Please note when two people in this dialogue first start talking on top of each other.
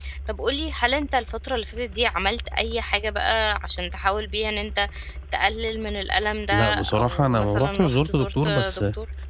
6.5 s

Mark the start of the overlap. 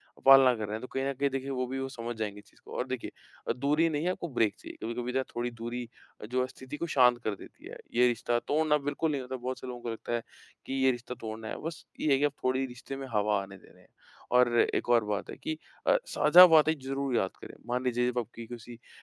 none

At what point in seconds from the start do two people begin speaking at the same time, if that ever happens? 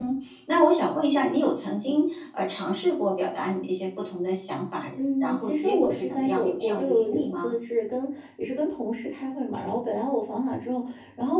5.0 s

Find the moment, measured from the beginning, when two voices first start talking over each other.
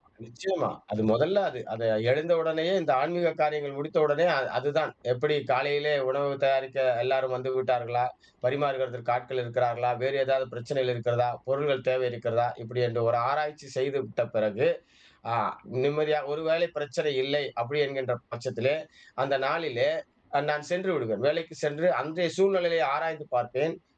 none

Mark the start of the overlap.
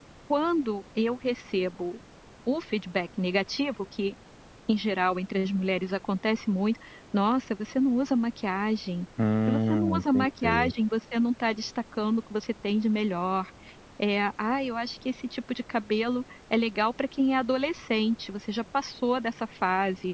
9.5 s

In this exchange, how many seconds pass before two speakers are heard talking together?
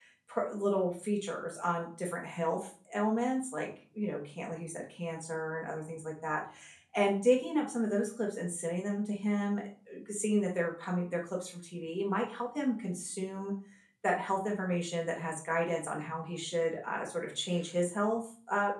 none

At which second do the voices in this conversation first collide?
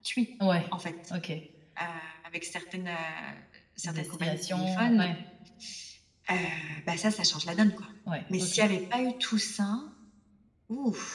3.8 s

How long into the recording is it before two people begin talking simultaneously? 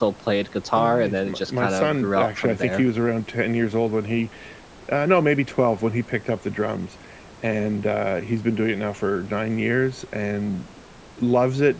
0.8 s

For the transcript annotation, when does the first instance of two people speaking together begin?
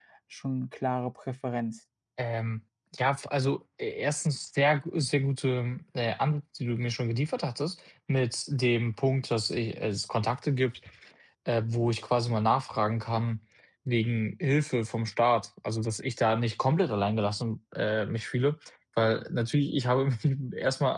none

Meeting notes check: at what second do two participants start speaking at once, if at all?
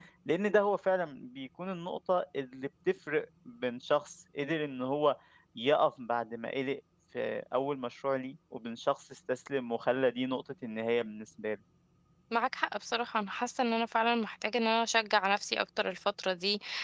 none

